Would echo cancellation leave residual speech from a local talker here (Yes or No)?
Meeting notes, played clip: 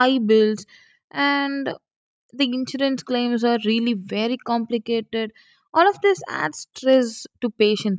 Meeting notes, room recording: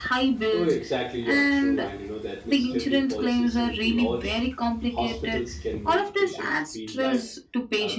Yes